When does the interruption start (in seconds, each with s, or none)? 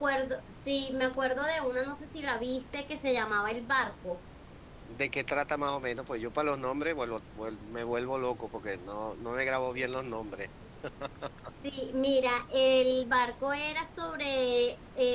none